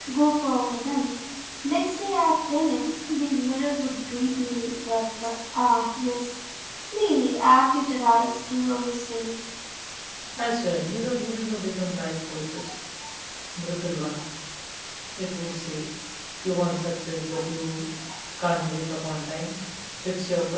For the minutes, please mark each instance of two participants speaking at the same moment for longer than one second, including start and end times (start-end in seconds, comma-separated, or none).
none